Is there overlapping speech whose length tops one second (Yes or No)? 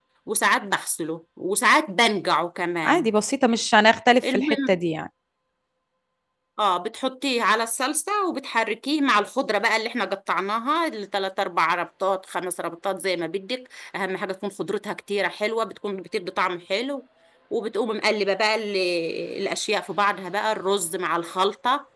No